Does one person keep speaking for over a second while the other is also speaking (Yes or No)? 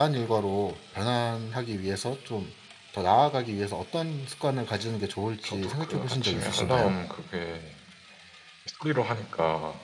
Yes